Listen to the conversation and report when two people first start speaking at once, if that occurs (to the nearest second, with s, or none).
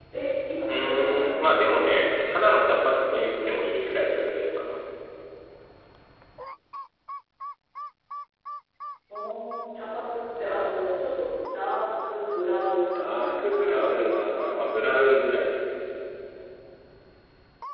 1 s